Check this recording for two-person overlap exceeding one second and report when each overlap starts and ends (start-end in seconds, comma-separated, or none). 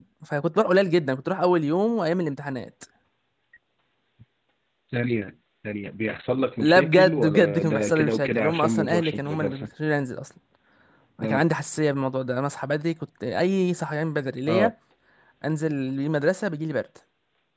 6.6-9.7